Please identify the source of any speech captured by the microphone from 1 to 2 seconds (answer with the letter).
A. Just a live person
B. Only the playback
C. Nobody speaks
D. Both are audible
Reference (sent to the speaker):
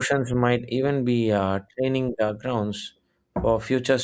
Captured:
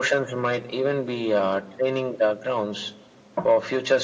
B